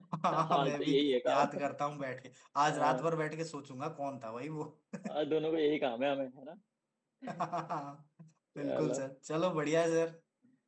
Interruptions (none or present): present